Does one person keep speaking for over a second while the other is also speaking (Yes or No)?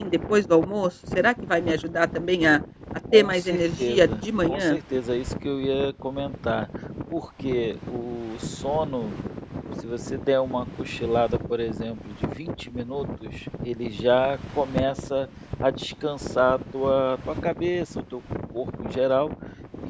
Yes